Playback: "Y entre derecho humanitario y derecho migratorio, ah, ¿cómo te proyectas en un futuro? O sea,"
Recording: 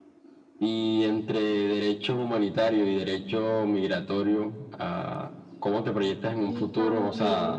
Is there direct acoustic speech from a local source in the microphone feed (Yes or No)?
Yes